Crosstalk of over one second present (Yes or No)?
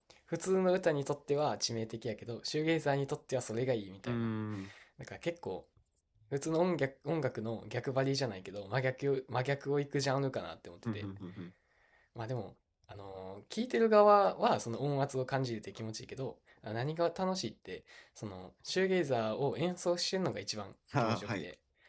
No